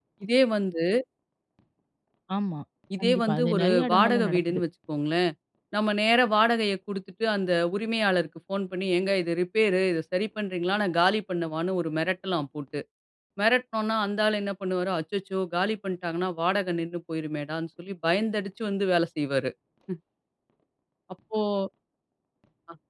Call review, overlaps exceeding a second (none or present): present